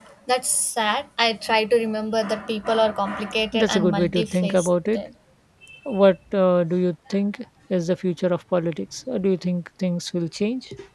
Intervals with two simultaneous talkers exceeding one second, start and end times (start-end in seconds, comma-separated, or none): 3.5-5.0